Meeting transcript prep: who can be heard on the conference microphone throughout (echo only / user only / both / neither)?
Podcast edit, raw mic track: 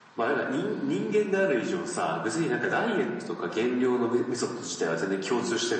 echo only